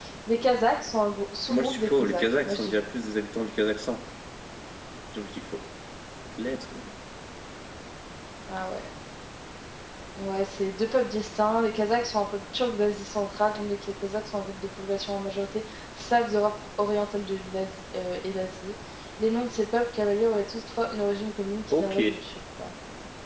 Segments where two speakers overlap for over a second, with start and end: 1.5-2.9

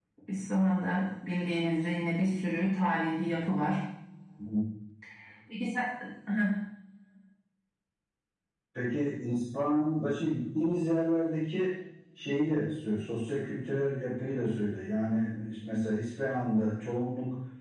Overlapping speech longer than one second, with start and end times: none

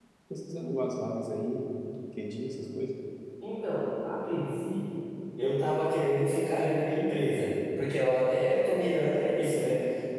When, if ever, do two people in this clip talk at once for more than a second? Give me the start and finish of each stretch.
none

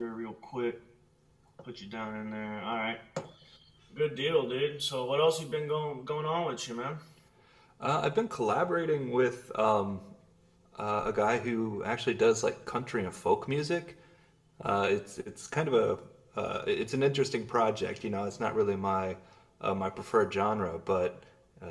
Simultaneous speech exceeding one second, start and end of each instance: none

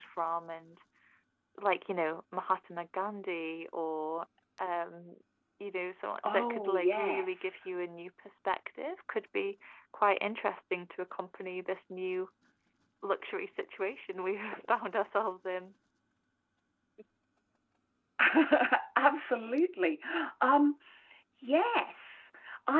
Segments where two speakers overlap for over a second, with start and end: 6.2-7.5

